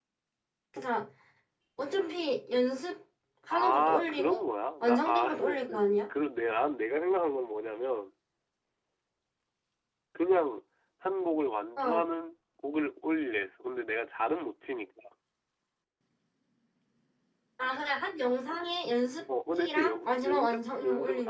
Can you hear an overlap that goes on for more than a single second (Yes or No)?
Yes